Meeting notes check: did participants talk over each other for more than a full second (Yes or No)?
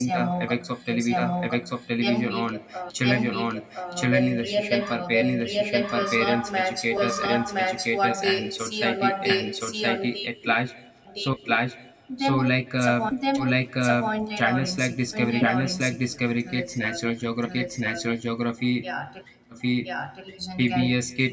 Yes